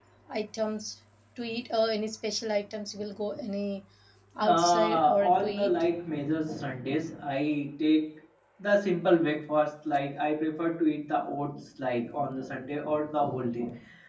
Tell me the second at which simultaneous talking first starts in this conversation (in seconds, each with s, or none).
4.4 s